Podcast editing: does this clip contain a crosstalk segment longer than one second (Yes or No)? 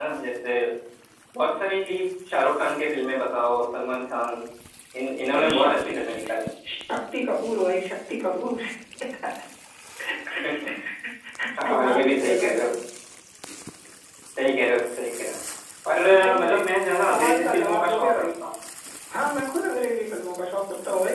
Yes